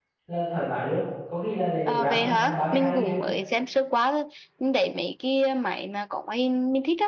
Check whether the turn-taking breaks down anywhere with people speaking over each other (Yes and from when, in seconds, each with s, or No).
Yes, from 1.9 s